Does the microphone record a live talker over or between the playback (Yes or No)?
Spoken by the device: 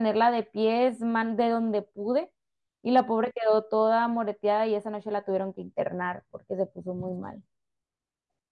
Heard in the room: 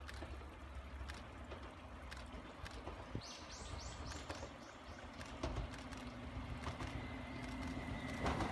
No